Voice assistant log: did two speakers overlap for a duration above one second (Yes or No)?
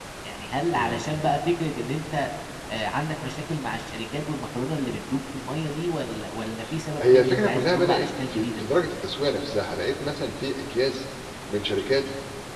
Yes